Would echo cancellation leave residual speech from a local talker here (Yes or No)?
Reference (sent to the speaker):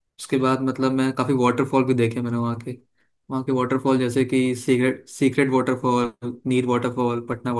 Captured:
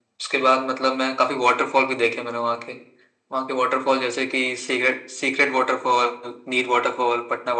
No